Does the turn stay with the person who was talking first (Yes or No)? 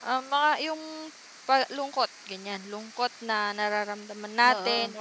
Yes